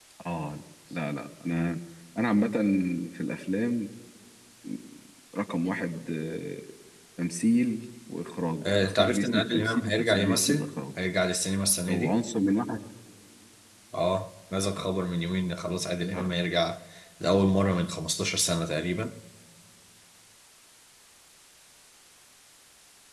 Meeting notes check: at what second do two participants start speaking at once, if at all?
8.6 s

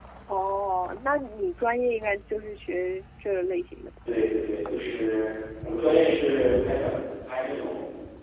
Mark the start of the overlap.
none

